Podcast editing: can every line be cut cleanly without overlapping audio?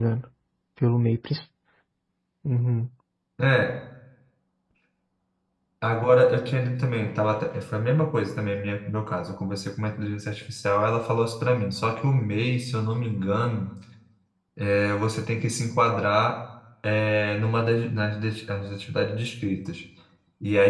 Yes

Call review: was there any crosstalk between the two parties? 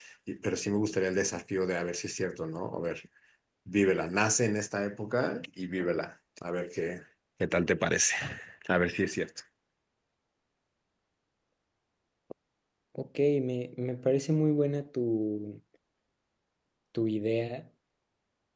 No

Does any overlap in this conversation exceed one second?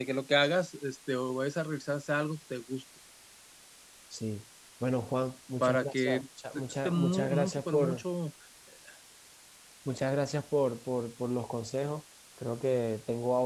Yes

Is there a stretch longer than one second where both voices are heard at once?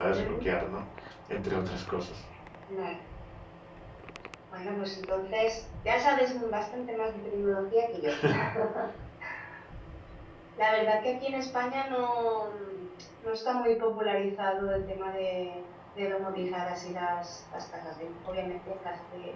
No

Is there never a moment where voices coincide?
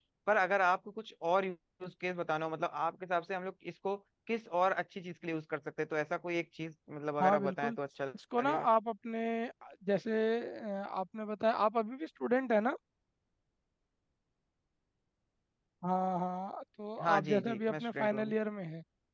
No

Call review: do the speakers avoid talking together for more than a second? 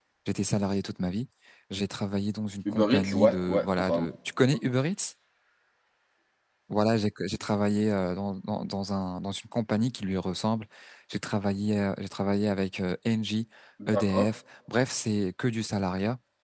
No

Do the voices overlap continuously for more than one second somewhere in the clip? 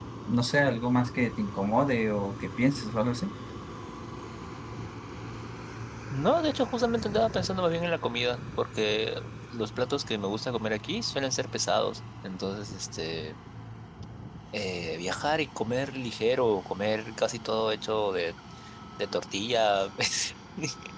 No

